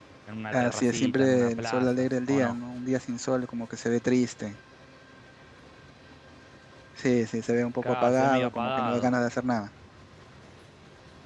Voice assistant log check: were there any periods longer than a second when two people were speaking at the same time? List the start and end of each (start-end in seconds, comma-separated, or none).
0.5-2.6, 7.8-9.1